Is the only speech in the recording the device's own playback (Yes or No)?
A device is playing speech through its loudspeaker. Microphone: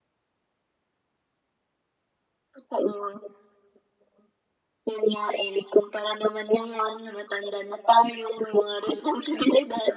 Yes